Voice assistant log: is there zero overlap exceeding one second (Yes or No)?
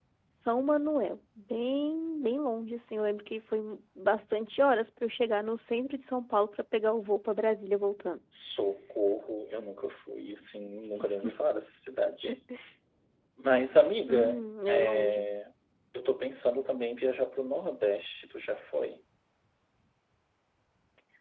No